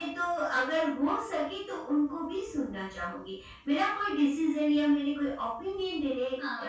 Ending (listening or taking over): listening